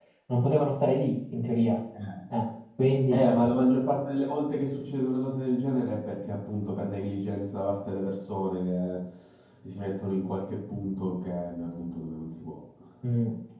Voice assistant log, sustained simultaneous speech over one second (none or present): none